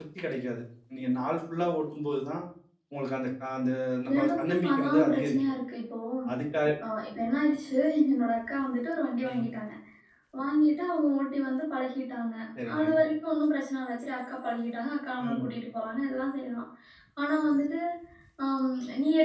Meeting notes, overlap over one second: present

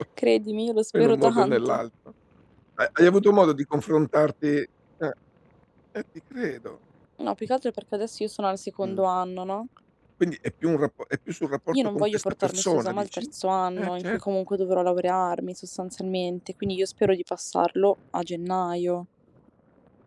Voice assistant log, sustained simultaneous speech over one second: present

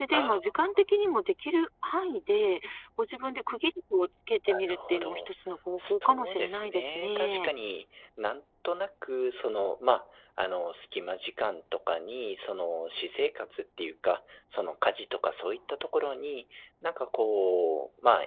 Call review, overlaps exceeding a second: present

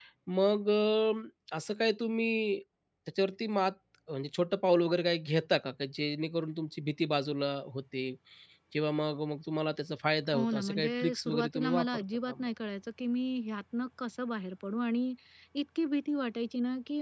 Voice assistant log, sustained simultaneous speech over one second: present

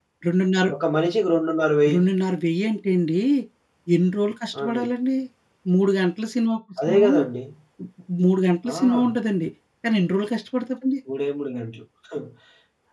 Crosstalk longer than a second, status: none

